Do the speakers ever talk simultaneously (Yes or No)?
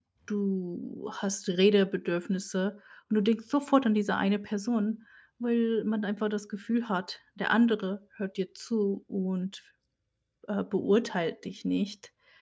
No